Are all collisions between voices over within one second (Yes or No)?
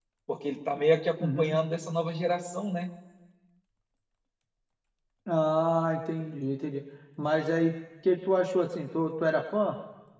Yes